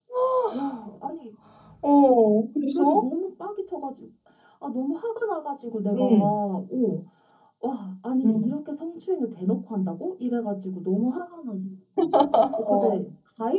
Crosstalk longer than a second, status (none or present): none